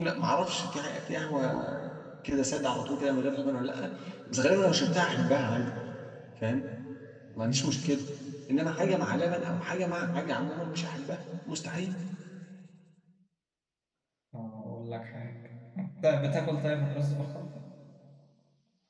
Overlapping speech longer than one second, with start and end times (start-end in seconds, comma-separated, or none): none